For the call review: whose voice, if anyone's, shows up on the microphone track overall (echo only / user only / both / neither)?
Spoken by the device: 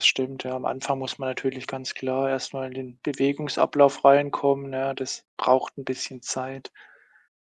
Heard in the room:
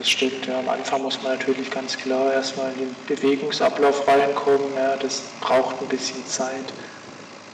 echo only